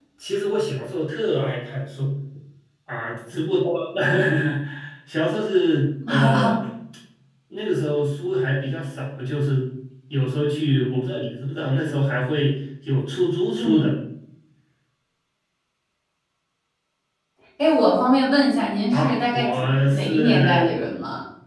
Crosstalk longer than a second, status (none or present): present